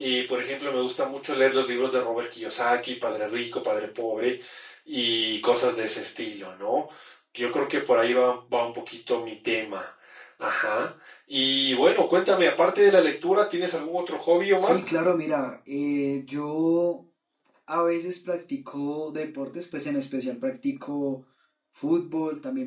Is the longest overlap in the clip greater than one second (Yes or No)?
No